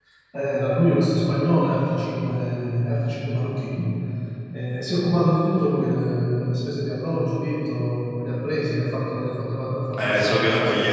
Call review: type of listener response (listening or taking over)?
taking over